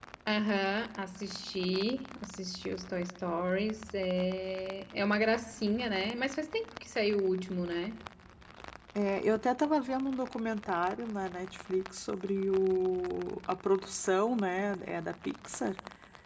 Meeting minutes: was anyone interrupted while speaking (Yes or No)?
No